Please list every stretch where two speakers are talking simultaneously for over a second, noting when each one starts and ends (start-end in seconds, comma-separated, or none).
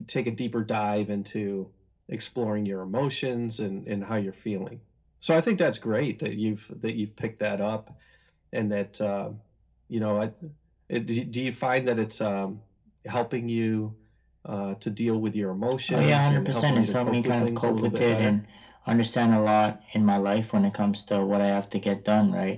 15.9-18.4